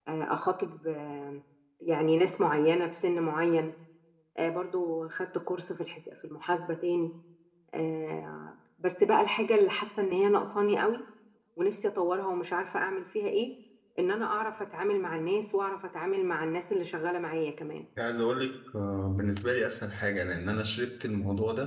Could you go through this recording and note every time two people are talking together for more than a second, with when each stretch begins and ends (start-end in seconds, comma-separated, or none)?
none